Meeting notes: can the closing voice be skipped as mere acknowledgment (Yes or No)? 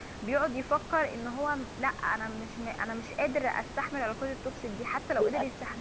Yes